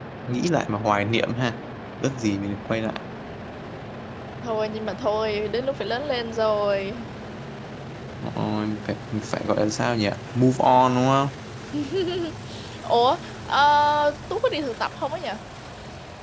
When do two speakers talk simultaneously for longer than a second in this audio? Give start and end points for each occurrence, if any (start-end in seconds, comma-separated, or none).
none